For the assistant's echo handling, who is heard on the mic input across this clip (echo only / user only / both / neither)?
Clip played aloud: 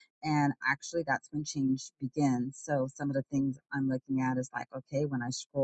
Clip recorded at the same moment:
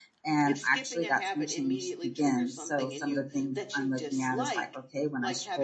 both